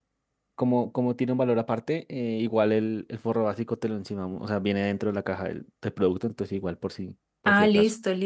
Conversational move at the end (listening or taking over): taking over